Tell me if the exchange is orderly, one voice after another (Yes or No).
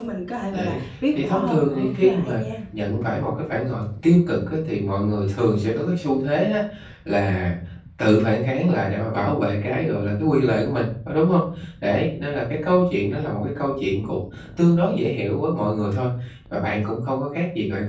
No